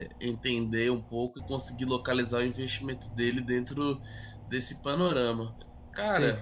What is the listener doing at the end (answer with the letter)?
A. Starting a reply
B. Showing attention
A